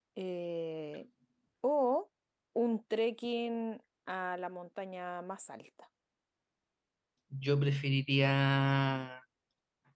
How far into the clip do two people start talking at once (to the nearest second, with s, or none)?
none